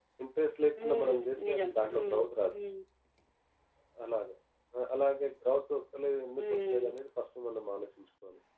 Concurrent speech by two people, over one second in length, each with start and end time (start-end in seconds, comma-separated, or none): 0.8-2.2